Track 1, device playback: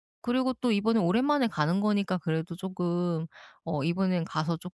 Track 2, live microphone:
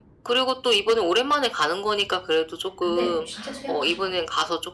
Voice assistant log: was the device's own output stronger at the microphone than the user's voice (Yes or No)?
Yes